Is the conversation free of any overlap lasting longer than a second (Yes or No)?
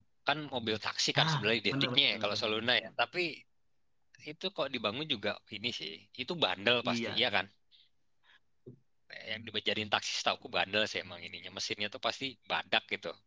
No